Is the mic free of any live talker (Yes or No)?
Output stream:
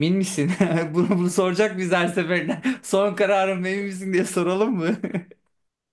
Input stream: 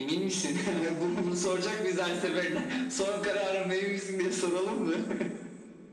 Yes